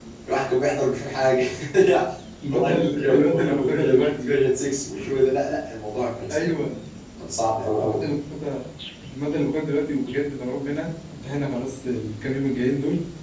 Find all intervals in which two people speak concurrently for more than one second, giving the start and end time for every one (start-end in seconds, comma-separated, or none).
2.5-4.3